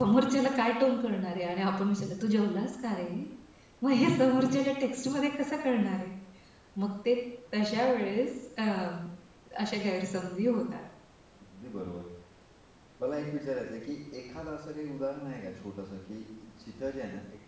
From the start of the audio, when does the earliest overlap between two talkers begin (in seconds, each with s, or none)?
none